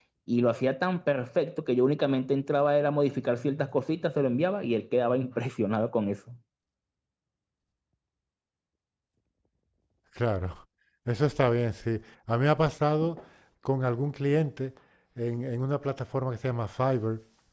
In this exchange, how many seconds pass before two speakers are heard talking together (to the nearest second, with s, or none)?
none